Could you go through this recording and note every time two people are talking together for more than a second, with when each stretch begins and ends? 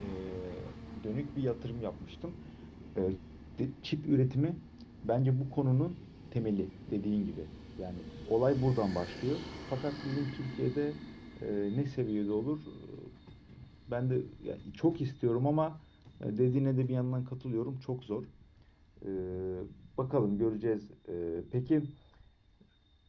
none

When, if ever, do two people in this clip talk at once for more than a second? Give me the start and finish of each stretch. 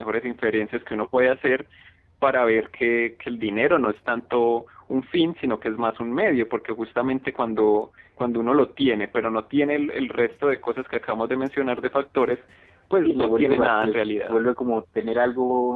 13.0-14.3

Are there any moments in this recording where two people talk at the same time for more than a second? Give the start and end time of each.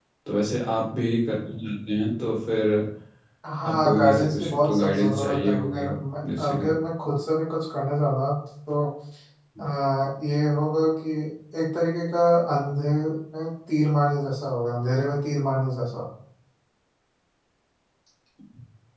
3.6-5.8

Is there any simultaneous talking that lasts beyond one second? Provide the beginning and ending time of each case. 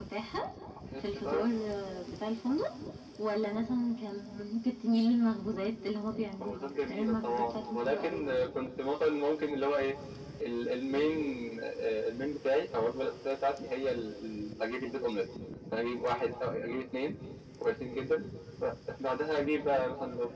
6.4-8.5

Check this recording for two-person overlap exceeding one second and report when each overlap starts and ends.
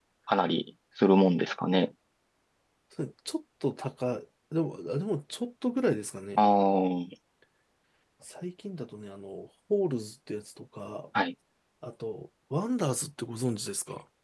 none

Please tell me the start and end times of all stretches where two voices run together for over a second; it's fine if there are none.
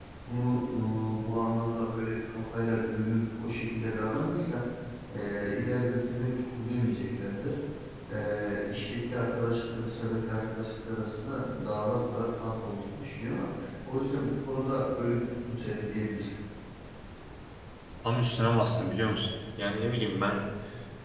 none

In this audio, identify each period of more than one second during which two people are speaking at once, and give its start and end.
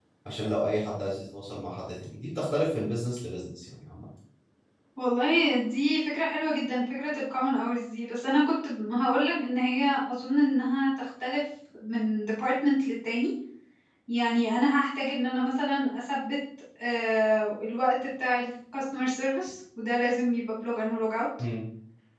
none

